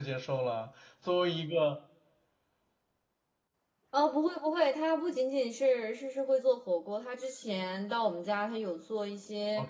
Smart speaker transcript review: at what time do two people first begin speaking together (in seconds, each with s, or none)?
none